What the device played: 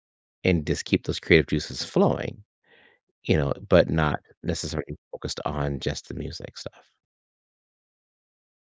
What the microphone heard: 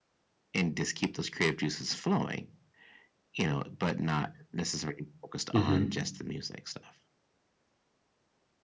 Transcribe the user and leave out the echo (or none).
Mm-hmm.